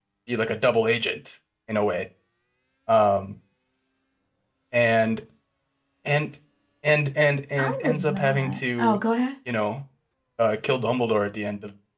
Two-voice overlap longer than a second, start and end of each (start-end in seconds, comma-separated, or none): 7.6-9.0